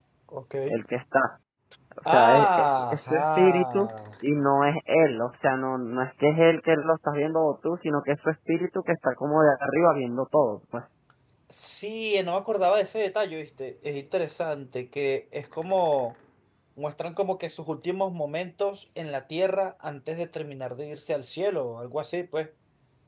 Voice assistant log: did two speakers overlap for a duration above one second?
Yes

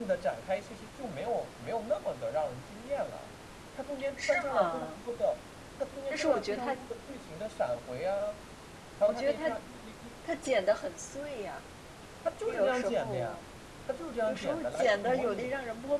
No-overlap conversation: No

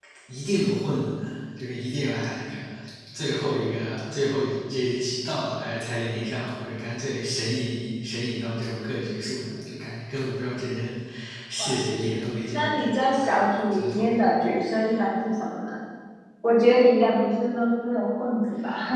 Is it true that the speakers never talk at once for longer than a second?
No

